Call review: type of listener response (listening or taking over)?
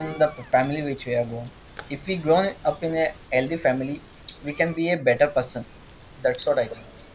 listening